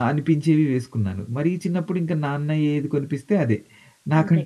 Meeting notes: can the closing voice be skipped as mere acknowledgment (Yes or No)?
Yes